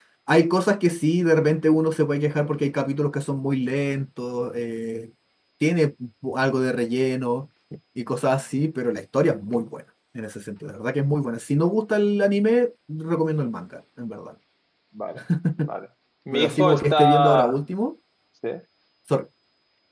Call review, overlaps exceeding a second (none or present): present